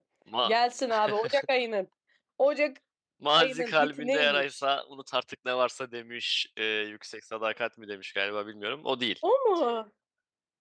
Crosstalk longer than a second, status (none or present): present